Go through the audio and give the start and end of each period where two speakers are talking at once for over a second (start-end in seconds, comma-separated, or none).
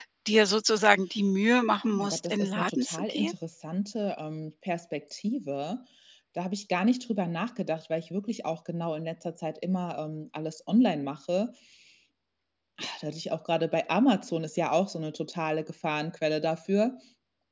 1.9-3.3